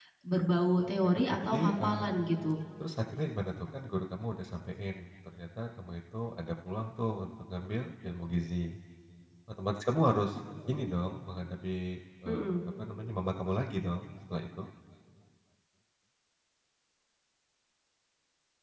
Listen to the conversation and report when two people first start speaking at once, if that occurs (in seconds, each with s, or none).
0.8 s